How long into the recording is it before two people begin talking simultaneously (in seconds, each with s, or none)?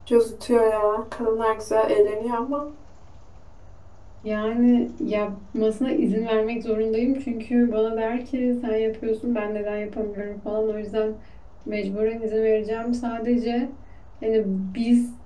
none